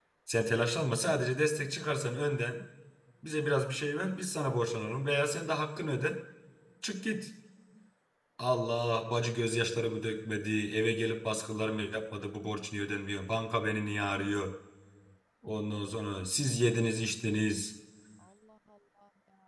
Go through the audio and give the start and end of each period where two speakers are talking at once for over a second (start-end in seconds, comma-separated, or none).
none